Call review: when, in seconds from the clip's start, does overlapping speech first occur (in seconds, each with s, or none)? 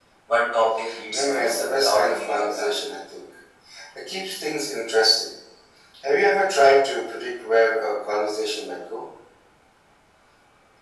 1.1 s